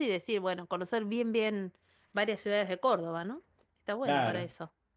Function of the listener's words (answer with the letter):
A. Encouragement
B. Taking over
B